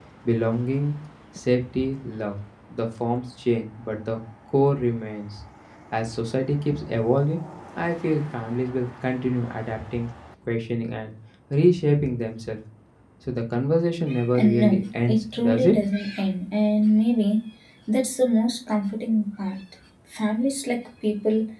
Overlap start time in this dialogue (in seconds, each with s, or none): 14.3 s